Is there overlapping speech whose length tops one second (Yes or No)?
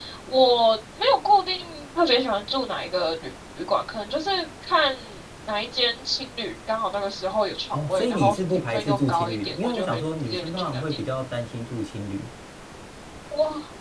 Yes